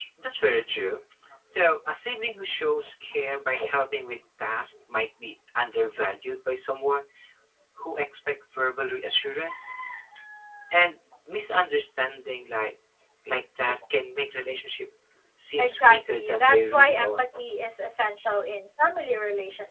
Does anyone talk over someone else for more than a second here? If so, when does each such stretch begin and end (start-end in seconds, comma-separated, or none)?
15.6-17.2